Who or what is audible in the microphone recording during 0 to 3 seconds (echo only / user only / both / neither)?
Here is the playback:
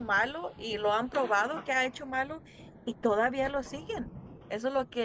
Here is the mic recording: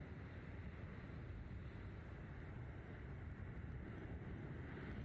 neither